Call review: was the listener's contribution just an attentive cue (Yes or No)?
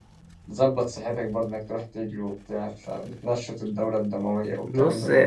No